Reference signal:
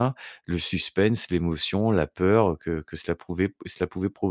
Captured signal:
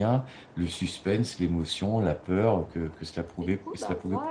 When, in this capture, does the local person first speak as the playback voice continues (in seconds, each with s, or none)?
3.4 s